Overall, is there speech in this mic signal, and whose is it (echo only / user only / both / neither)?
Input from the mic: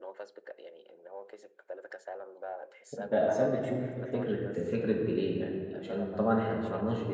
both